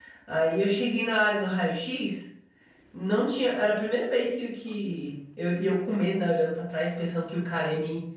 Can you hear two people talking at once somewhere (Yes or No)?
No